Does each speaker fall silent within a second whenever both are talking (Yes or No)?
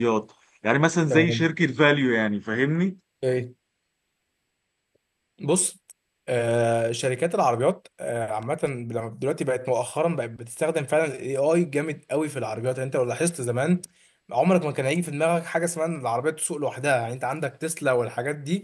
Yes